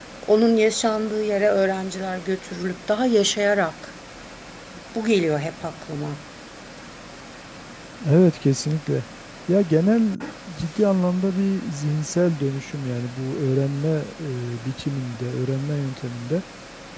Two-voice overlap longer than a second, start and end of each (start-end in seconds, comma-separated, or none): none